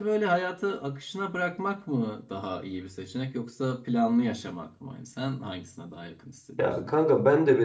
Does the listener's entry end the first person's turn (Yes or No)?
Yes